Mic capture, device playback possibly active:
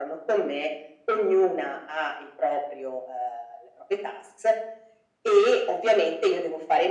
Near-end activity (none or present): none